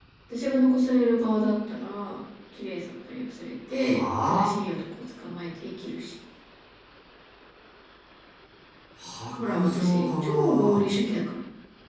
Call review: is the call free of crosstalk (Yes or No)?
No